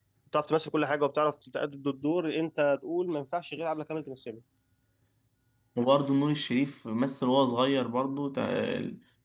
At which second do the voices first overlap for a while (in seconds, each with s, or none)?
none